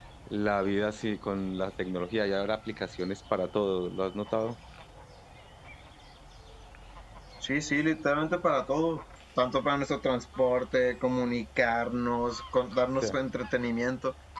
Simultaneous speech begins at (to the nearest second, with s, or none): none